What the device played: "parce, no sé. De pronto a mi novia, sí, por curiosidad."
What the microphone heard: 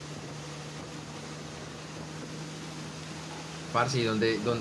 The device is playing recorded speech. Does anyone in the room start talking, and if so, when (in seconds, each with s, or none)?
3.7 s